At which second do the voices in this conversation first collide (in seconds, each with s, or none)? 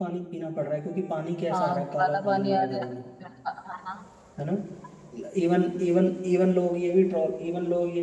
1.5 s